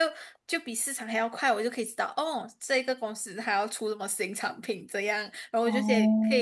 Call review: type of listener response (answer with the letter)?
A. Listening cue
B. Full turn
A